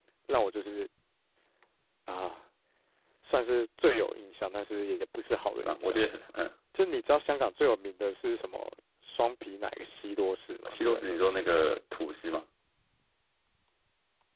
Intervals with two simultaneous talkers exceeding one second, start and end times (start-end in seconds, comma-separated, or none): none